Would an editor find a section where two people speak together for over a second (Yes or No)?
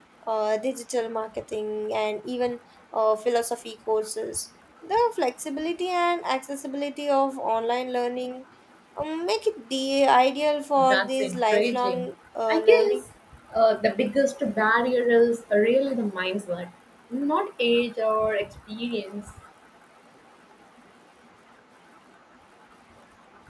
Yes